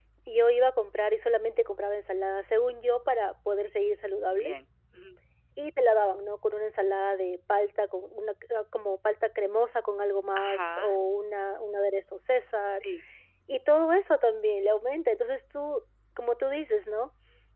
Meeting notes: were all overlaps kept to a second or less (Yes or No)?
Yes